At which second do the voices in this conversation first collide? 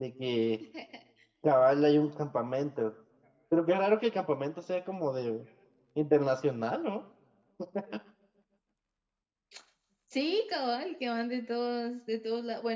none

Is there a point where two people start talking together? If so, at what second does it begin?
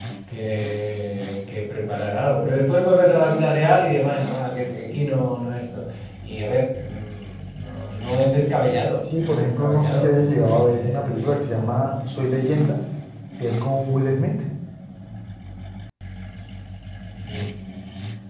9.1 s

